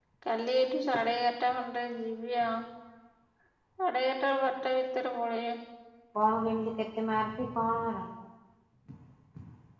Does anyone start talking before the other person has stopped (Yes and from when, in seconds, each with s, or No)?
No